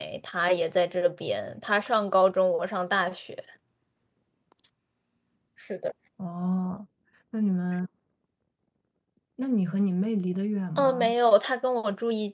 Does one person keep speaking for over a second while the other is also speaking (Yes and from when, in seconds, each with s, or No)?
No